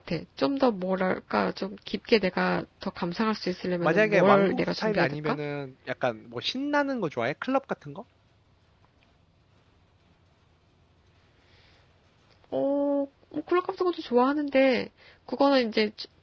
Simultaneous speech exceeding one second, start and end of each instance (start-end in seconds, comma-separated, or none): 3.8-5.4